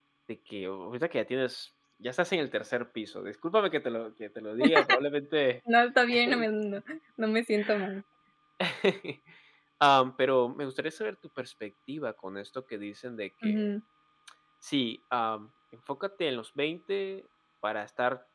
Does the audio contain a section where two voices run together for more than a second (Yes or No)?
No